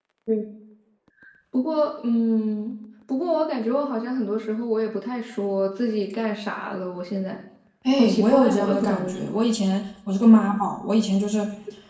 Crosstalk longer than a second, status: present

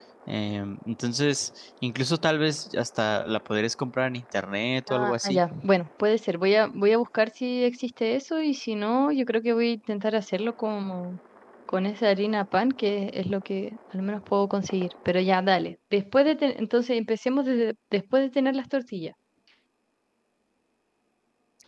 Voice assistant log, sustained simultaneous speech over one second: none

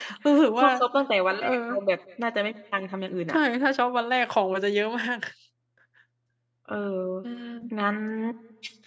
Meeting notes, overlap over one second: none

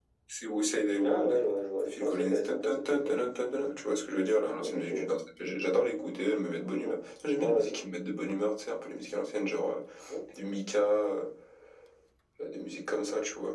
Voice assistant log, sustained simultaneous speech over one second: present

